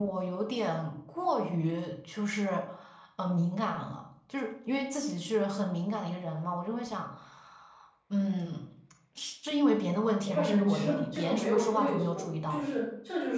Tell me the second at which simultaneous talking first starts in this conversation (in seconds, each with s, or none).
10.3 s